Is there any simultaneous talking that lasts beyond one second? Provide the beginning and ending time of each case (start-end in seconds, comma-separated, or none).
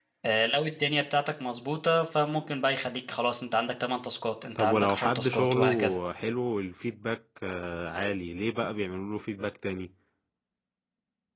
4.5-6.0